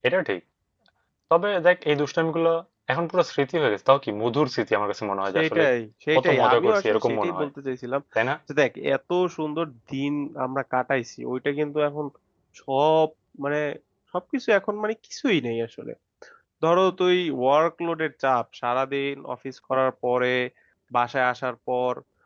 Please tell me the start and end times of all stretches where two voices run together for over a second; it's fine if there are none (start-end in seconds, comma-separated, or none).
6.2-7.5